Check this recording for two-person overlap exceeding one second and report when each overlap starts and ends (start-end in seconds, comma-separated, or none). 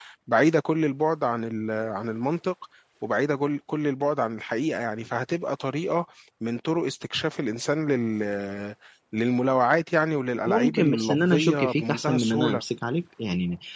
10.4-12.6